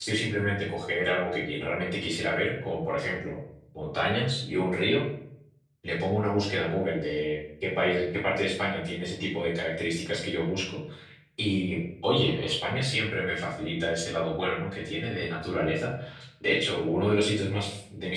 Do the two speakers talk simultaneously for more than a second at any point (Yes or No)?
No